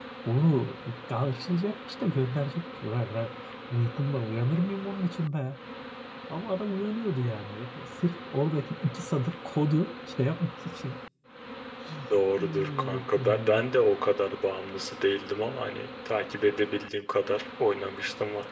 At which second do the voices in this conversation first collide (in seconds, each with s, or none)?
12.4 s